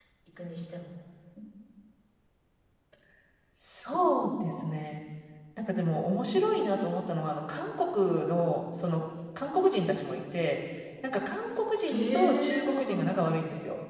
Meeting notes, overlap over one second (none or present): present